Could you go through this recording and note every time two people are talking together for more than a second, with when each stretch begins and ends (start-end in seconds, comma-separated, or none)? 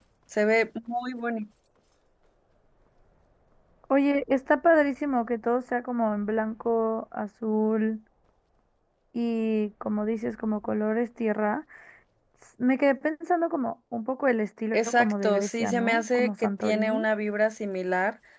14.7-17.1